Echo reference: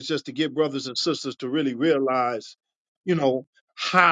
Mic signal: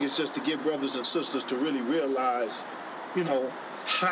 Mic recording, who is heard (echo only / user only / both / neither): echo only